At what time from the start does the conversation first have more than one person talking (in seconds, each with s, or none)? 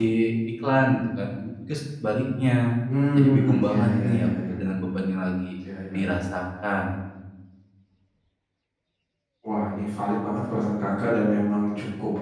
3.1 s